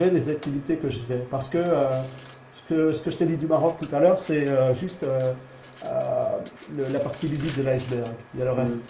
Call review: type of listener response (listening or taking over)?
taking over